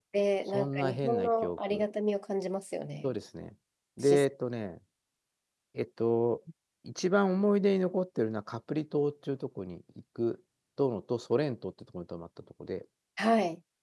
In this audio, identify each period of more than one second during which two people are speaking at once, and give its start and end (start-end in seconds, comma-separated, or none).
0.5-1.8